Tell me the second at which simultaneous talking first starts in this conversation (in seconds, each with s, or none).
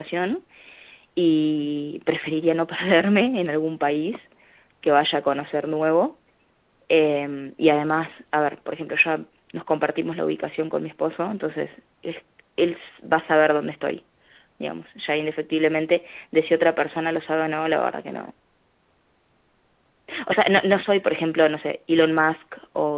none